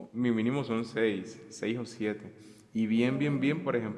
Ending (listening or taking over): listening